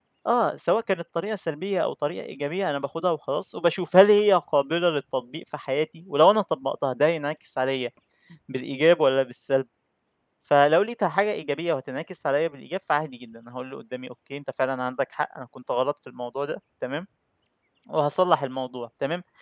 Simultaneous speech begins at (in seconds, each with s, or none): none